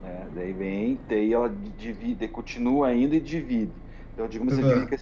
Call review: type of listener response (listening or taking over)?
listening